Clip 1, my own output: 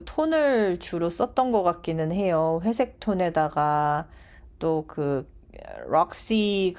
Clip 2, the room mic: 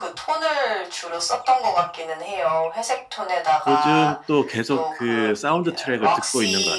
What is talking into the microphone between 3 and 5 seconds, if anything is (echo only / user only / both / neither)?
both